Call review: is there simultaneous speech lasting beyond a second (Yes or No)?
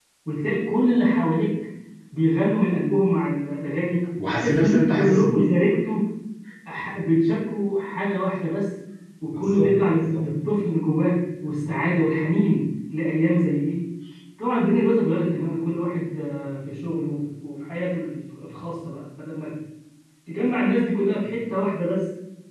Yes